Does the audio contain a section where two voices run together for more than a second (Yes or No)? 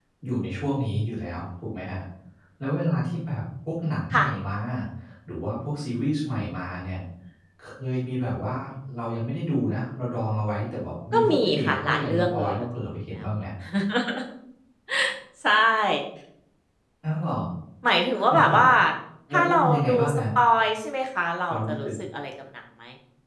Yes